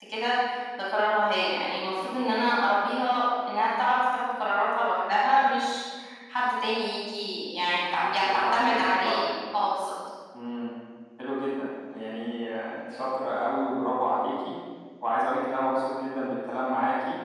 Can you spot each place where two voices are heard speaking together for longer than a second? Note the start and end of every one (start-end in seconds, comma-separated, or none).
8.0-9.3